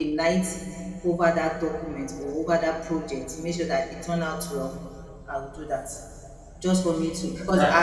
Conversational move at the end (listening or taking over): listening